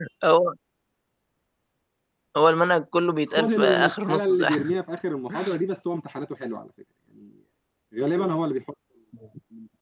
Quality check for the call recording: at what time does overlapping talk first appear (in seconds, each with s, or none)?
3.3 s